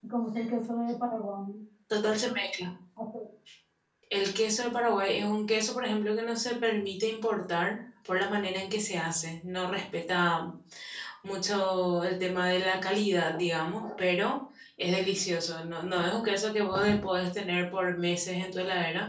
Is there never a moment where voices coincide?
Yes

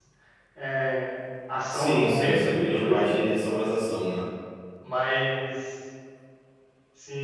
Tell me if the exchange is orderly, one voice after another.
No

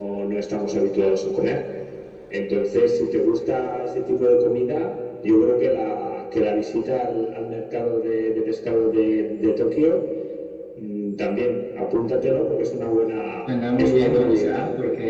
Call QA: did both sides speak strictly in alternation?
No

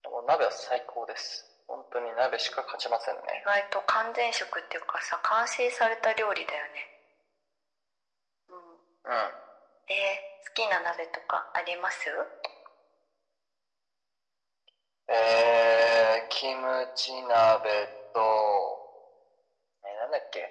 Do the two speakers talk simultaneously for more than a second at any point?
No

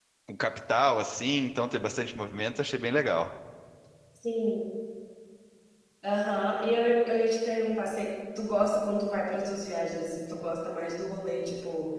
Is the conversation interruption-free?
Yes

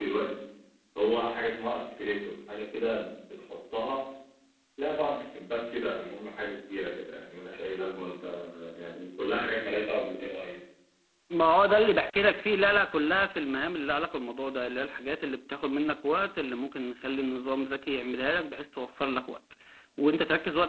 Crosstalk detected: No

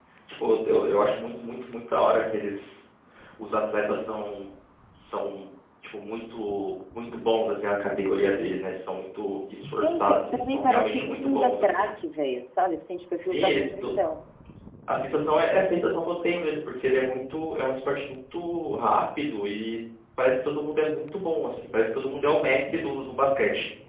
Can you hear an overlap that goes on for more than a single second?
Yes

